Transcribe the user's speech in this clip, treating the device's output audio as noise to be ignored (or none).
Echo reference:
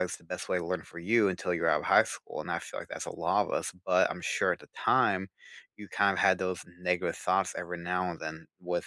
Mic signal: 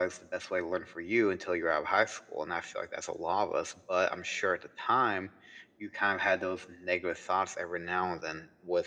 none